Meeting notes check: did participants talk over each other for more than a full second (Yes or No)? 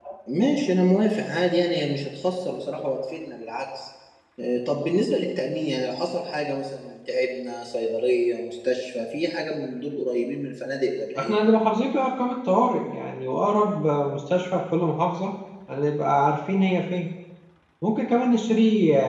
No